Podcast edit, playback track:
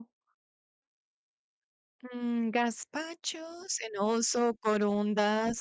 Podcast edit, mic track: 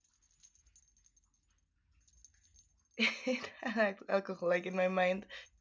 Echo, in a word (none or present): none